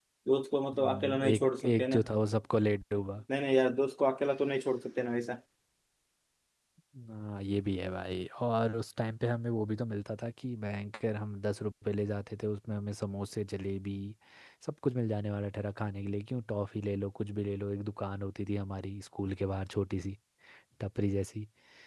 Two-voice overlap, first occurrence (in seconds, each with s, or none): 0.7 s